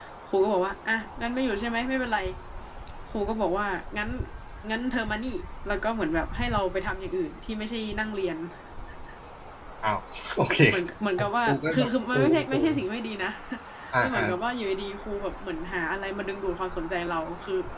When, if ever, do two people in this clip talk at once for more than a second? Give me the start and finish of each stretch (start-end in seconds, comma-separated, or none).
11.2-12.7